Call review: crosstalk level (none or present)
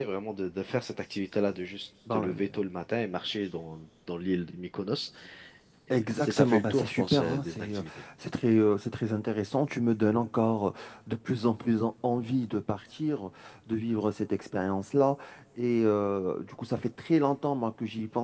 present